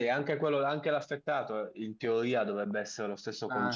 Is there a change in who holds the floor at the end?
No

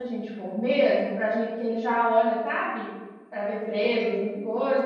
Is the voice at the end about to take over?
No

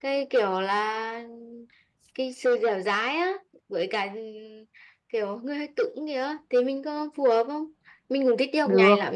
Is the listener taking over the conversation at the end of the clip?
No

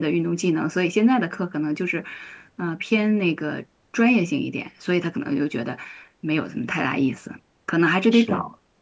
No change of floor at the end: Yes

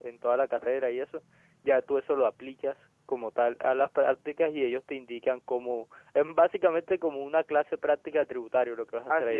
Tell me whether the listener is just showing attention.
No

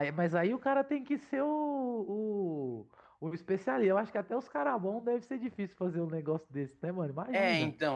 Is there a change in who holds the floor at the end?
Yes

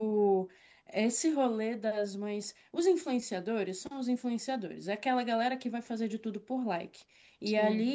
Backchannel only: Yes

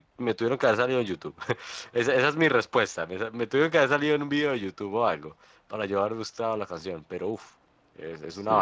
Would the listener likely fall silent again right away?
No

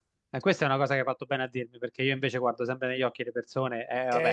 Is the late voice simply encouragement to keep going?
No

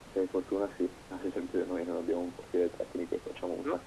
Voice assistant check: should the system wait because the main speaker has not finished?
Yes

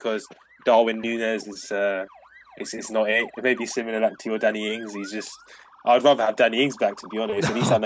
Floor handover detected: No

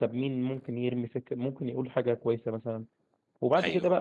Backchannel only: Yes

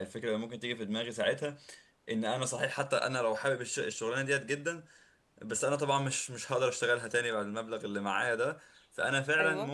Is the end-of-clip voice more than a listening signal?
No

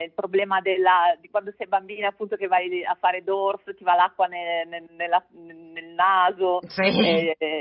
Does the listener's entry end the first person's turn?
No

